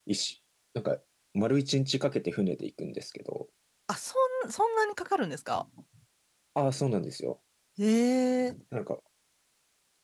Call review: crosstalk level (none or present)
none